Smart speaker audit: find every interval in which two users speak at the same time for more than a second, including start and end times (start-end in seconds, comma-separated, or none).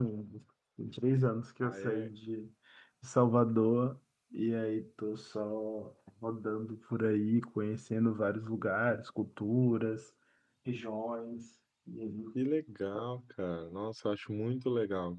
none